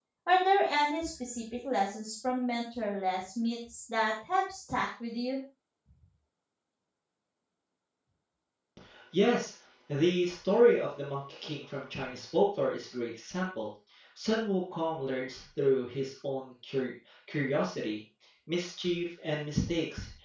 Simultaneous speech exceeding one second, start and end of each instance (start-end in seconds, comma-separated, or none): none